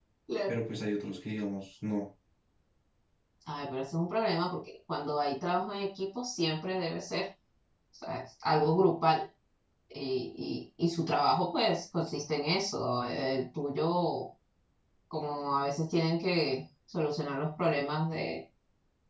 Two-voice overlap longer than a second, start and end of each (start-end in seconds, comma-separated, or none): none